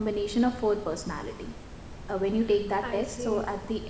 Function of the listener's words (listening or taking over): listening